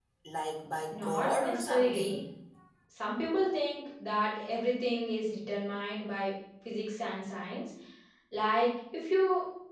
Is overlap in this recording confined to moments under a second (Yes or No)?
No